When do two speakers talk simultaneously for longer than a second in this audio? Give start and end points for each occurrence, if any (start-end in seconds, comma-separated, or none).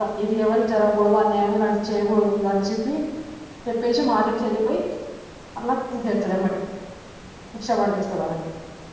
none